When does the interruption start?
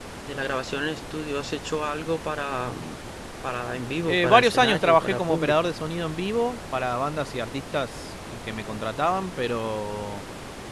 4.1 s

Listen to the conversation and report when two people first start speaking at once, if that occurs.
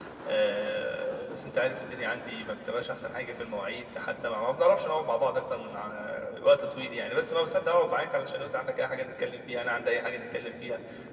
none

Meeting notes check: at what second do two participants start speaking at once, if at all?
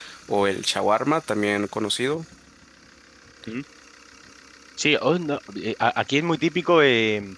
none

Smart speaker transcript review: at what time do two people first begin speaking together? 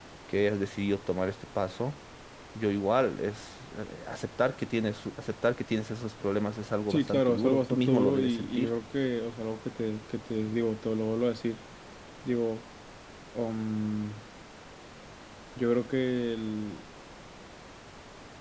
6.9 s

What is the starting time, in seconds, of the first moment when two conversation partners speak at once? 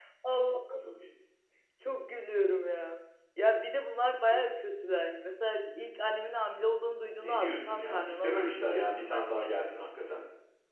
7.2 s

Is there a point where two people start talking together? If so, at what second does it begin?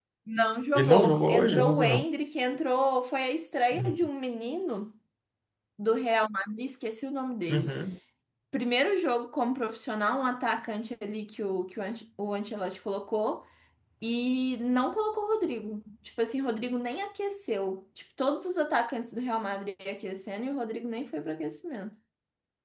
0.8 s

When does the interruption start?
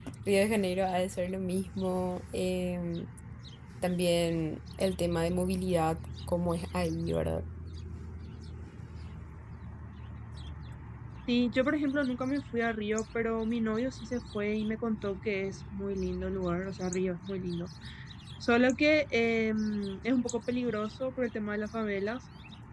none

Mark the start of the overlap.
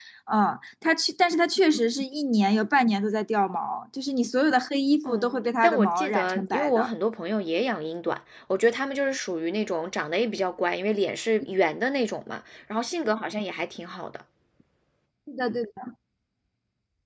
5.0 s

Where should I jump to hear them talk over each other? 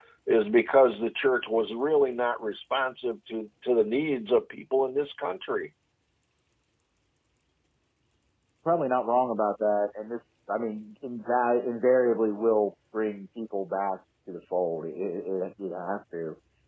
none

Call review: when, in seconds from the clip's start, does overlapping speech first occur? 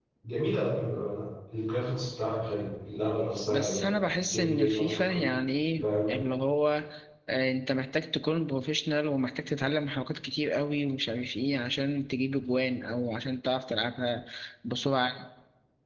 3.5 s

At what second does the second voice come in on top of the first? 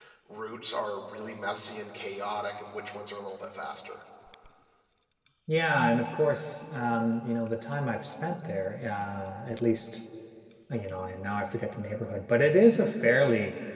none

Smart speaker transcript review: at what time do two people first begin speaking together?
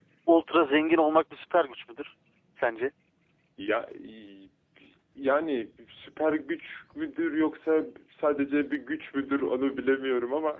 none

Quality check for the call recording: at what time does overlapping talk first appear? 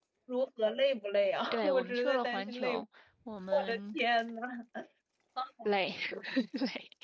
1.5 s

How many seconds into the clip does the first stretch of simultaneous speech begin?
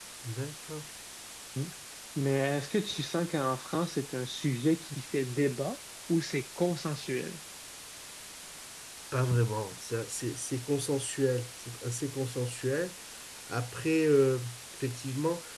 none

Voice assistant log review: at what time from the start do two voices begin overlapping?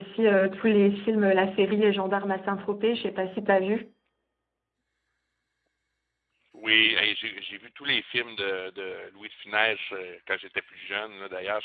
none

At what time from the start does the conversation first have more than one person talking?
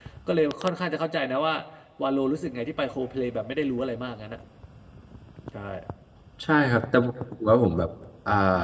none

